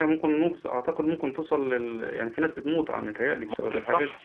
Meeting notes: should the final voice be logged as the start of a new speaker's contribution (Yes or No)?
Yes